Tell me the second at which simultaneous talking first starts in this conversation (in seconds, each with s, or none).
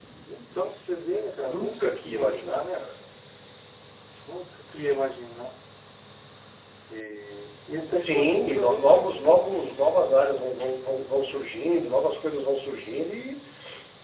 1.4 s